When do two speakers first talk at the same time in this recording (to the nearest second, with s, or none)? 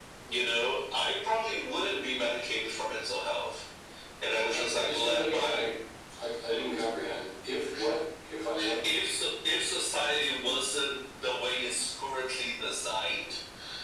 4 s